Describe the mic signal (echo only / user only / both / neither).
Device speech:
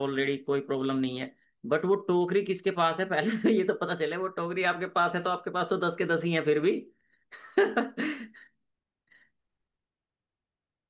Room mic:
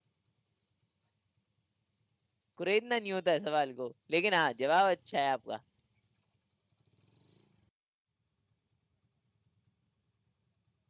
user only